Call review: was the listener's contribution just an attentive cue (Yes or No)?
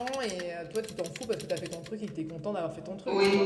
No